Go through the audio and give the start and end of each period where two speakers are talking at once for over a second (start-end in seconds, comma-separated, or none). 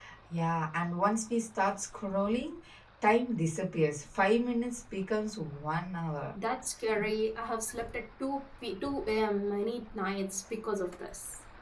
none